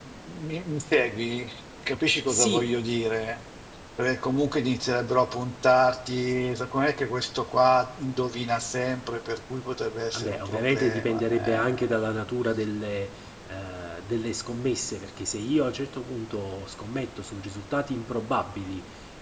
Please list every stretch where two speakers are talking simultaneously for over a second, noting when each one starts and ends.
10.1-11.9

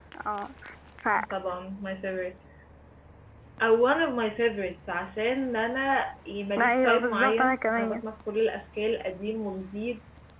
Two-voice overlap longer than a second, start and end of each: 6.6-8.0

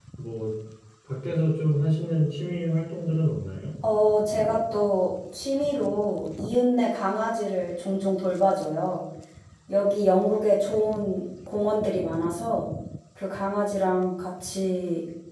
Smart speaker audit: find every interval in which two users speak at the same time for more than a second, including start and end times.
none

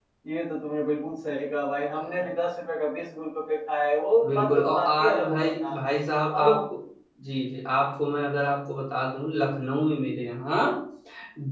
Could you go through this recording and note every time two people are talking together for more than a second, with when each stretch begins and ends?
4.2-5.7

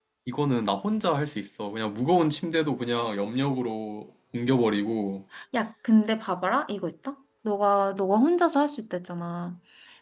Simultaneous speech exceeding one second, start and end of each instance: none

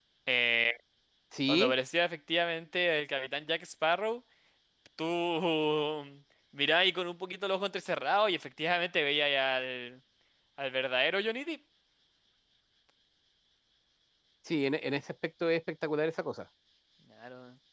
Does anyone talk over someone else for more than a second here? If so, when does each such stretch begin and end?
none

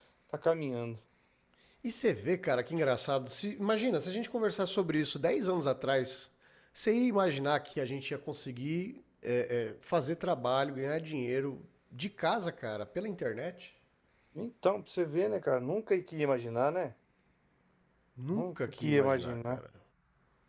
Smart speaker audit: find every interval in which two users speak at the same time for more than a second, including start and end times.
18.3-19.6

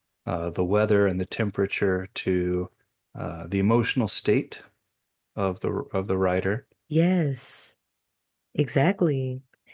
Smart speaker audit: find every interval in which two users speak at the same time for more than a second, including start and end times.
none

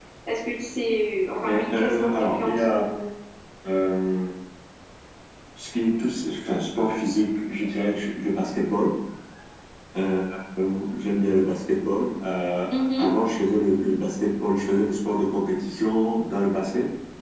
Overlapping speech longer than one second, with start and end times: 1.4-2.9

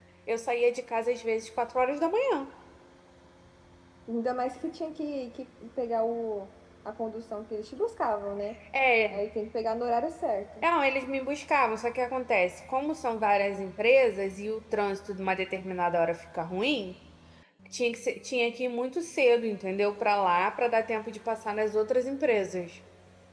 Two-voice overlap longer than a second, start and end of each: none

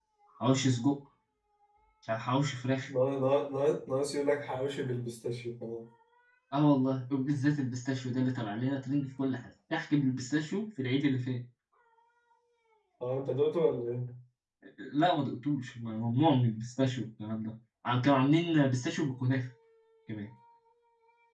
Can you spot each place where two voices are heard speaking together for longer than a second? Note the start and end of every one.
none

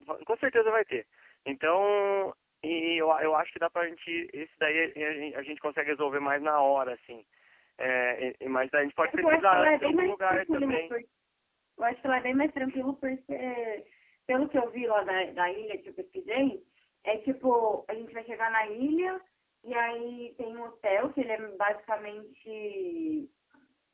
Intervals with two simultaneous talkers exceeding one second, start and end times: 9.0-10.9

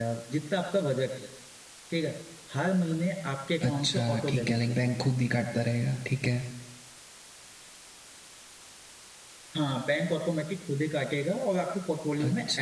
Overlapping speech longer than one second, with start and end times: 3.7-5.0

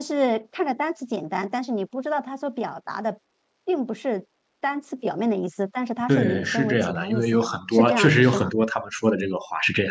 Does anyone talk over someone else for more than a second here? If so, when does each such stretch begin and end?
6.1-8.5

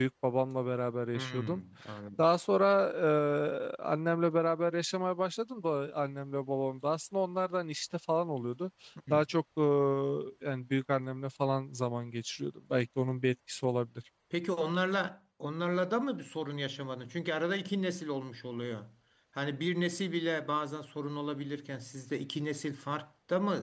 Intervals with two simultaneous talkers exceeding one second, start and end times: none

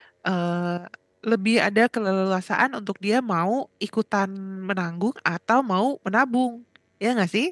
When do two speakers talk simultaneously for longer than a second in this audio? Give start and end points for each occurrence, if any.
none

